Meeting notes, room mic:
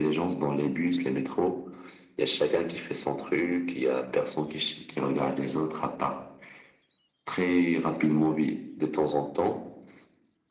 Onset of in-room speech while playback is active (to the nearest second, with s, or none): none